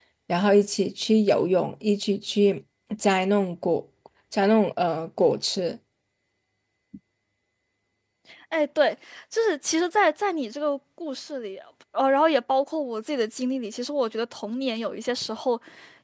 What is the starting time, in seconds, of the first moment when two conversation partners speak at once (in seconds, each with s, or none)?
none